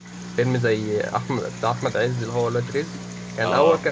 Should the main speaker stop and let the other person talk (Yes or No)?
No